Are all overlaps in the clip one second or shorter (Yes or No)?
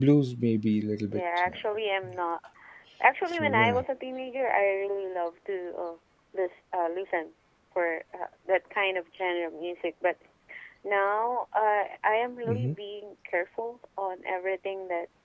Yes